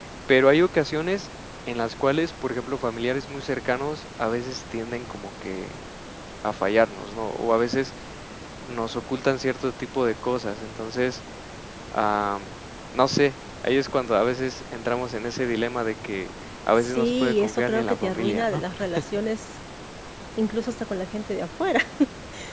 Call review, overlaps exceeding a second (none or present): present